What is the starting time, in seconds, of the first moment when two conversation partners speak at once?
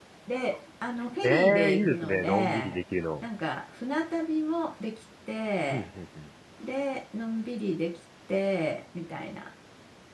1.2 s

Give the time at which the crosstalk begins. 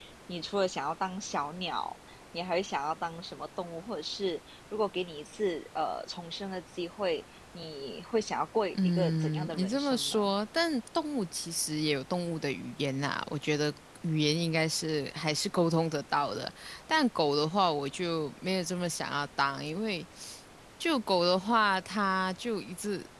8.8 s

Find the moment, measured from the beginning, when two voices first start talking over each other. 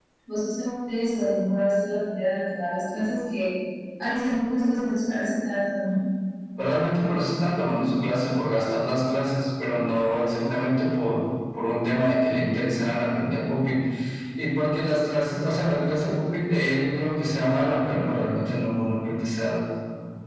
none

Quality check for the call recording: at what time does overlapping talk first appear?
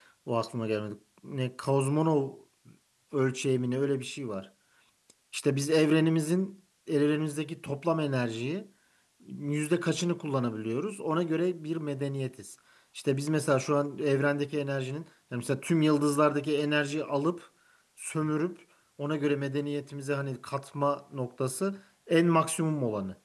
none

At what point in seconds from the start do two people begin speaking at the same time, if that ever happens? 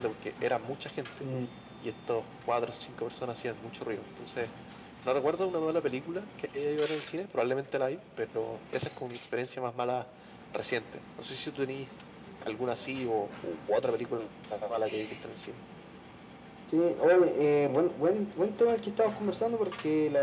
none

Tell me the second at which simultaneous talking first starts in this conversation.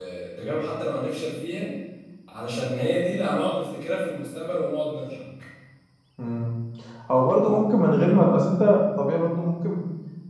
none

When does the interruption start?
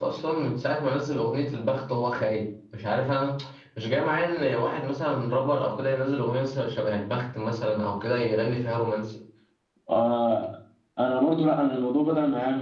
none

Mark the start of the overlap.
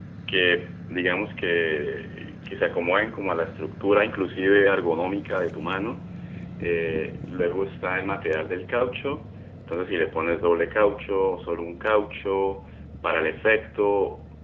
none

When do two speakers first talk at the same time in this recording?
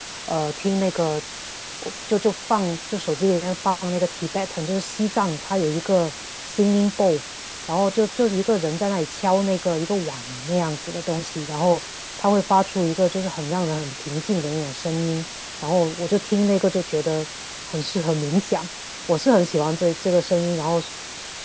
none

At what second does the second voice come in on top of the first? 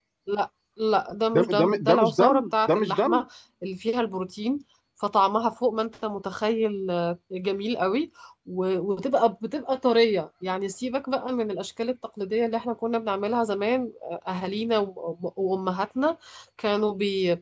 1.3 s

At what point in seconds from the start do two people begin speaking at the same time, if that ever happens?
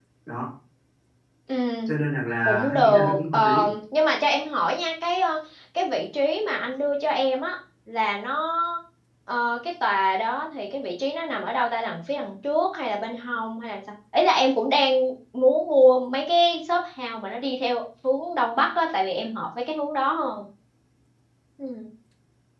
2.4 s

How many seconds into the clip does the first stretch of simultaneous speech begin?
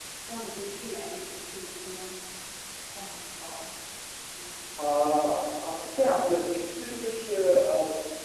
none

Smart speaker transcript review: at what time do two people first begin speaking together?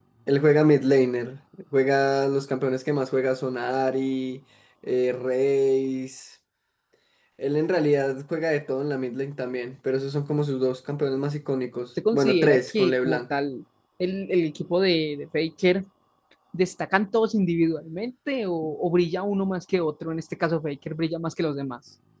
12.1 s

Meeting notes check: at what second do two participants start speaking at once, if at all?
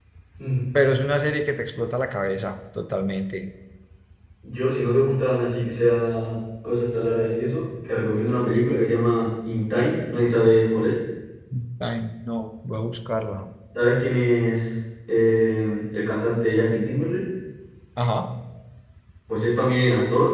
none

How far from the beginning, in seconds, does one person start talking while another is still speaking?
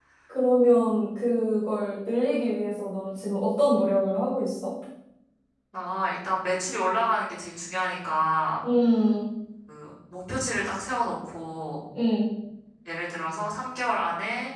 none

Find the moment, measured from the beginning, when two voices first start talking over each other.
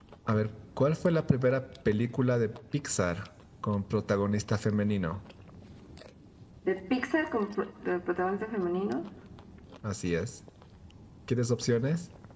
none

